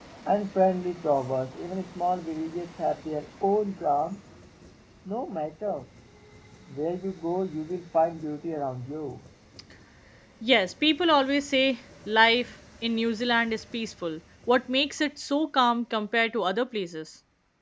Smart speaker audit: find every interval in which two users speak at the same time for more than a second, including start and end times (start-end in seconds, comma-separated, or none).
none